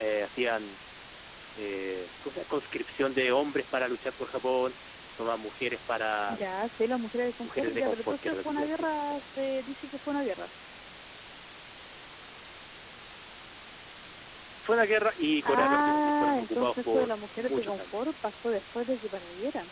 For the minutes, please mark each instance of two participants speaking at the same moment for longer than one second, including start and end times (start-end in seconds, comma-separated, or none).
7.4-9.3, 15.4-18.0